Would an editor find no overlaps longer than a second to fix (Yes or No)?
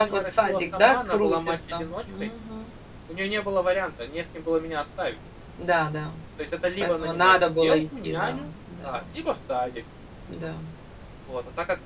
No